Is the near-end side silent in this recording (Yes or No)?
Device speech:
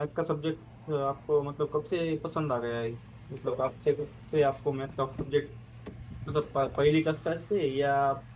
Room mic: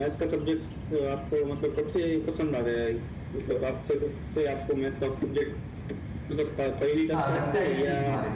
No